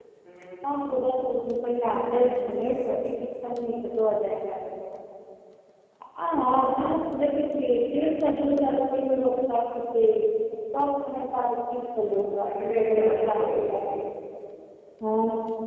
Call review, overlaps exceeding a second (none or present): present